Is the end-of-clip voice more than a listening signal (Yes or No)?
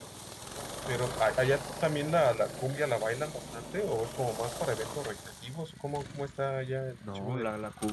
Yes